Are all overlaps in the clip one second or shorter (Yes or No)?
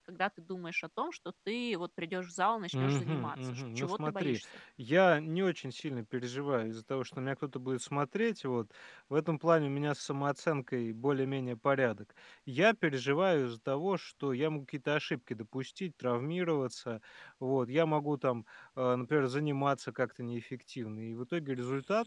No